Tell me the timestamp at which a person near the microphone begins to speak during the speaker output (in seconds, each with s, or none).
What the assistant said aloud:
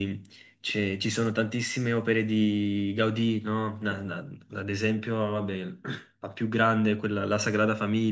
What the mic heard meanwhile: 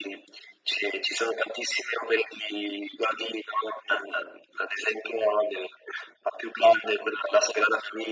none